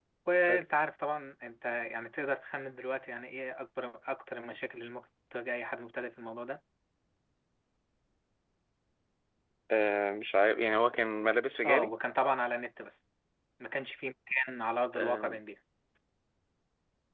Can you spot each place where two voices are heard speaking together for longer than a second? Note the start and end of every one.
none

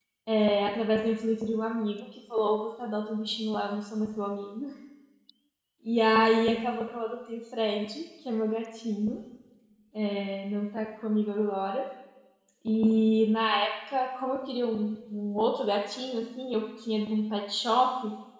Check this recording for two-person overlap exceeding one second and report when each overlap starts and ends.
none

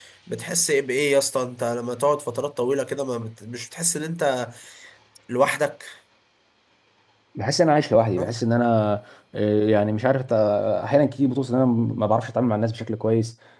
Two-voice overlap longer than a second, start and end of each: none

